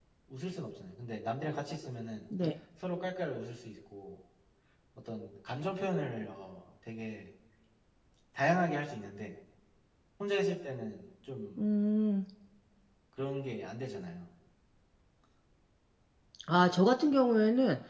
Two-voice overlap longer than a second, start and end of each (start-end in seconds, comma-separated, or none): none